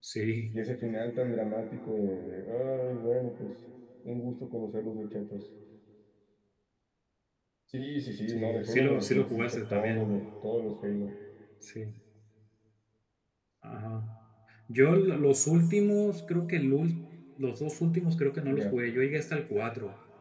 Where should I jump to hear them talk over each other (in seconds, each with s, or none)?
8.3 s